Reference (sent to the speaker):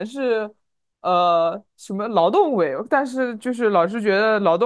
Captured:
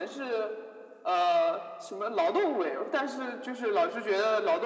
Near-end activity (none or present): none